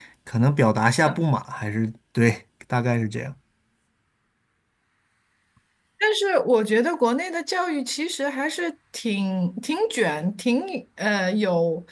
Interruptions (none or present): none